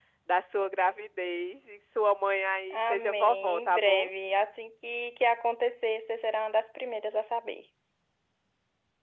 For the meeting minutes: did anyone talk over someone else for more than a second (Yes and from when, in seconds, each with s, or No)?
Yes, from 2.7 s